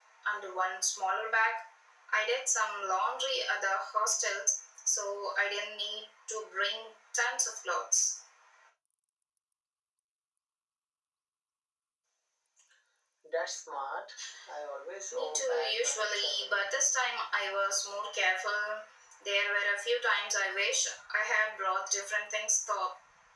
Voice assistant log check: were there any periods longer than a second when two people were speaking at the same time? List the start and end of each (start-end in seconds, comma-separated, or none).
15.1-16.5